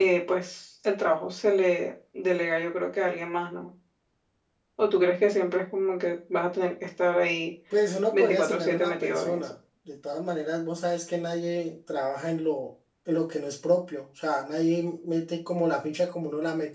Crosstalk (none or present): present